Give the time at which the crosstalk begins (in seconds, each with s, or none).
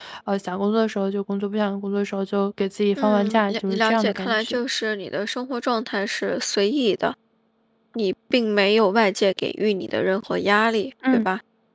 3.0 s